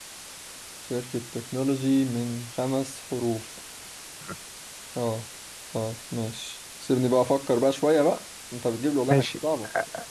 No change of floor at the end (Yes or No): No